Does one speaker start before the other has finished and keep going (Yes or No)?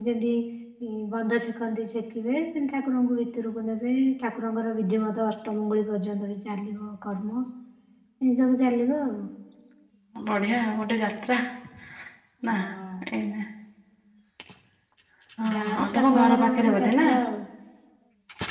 Yes